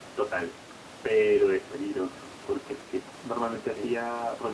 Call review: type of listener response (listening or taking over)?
listening